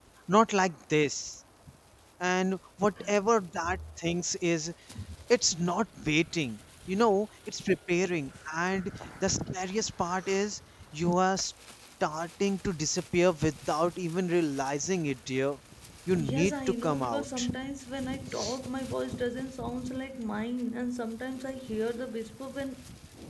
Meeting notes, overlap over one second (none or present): present